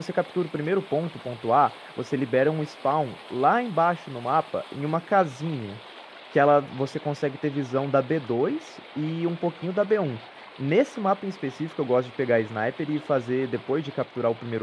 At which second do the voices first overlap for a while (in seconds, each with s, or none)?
none